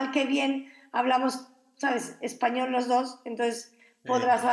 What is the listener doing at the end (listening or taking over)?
listening